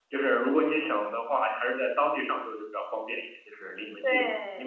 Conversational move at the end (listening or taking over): taking over